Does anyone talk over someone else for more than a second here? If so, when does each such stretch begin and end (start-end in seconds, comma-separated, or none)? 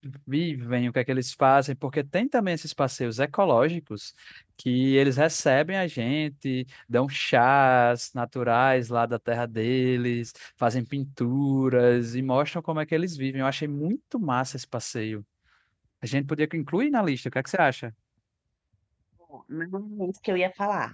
none